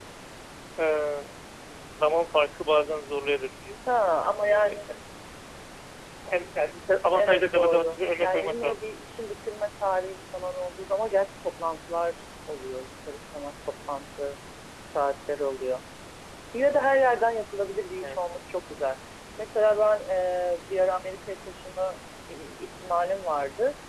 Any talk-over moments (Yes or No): Yes